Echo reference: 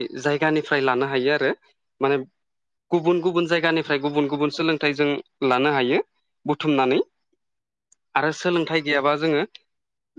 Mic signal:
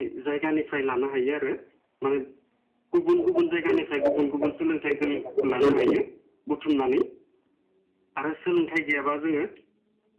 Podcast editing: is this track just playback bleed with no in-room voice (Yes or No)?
No